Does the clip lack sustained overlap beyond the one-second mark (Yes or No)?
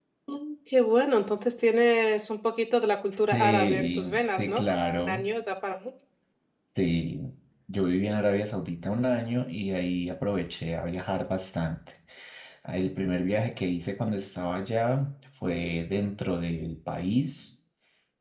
No